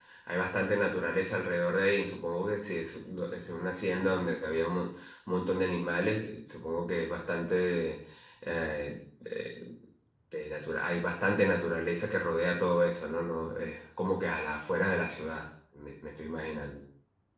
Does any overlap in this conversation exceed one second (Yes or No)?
No